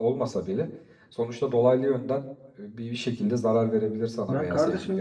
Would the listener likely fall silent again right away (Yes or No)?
No